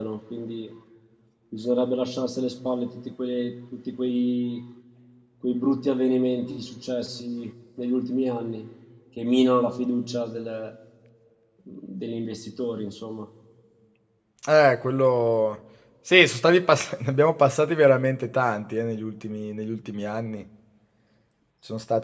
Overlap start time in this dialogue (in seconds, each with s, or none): none